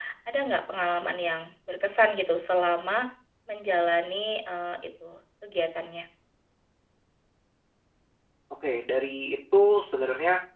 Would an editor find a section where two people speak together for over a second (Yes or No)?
No